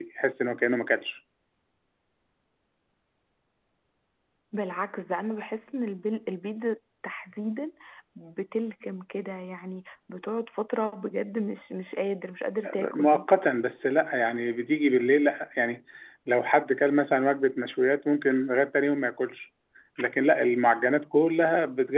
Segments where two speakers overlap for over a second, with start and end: none

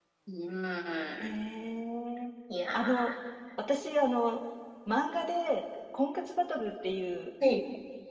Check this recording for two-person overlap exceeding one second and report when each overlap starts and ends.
none

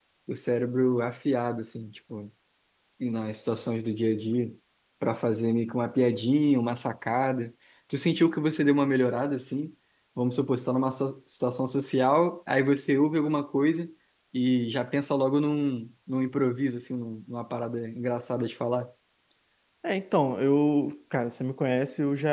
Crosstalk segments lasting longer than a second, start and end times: none

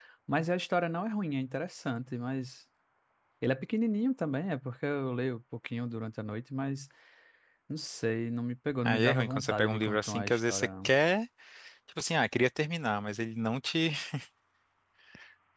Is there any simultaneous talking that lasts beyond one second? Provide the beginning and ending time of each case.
8.8-10.9

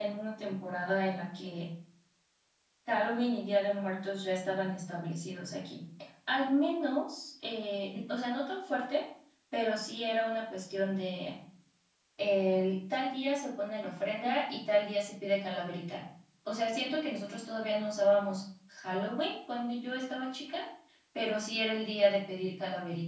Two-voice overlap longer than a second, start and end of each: none

